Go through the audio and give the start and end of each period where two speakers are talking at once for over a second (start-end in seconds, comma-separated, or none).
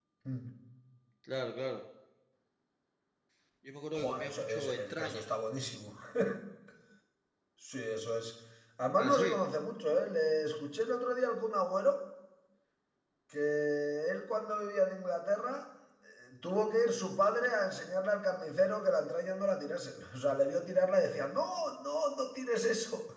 4.0-5.3